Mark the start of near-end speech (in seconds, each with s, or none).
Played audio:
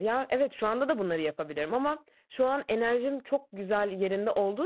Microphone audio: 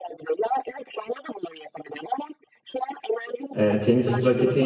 3.5 s